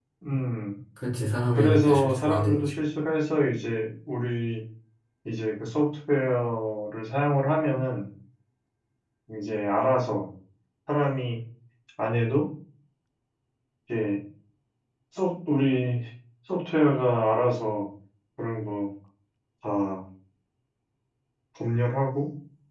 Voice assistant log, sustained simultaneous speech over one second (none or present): present